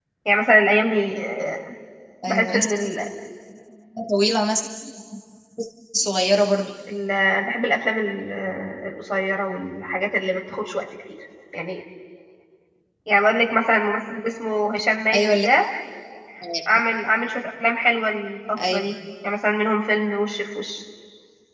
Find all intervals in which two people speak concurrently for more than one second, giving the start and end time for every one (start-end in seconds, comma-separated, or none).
none